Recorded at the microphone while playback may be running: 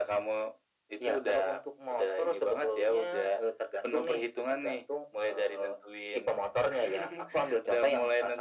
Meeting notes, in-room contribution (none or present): none